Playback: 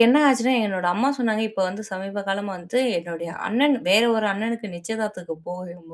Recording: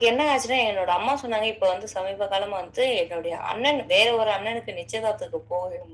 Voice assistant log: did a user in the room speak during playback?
No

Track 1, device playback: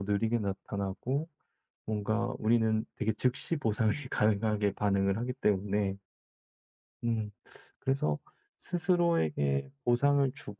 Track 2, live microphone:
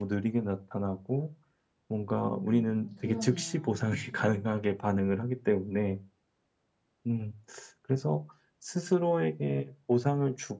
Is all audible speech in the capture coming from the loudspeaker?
No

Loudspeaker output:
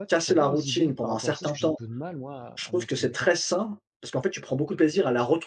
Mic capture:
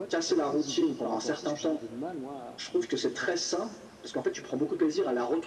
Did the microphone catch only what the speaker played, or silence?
Yes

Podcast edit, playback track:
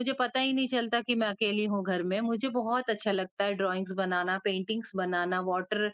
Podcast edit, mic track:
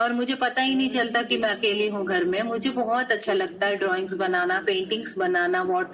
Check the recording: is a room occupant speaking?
Yes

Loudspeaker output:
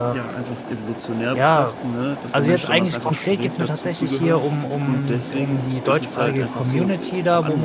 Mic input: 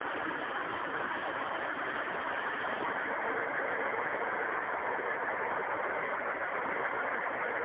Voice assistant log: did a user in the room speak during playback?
No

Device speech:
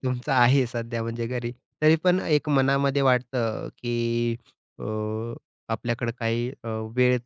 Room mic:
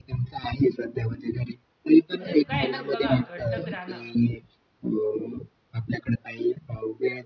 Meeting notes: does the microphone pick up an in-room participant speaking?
Yes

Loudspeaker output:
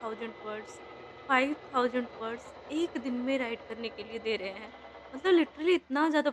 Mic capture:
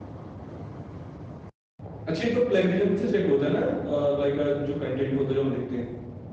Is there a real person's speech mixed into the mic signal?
Yes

